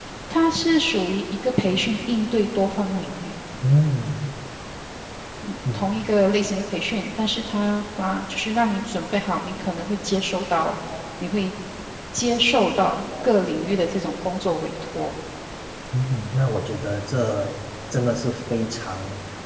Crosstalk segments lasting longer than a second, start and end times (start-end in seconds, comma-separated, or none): none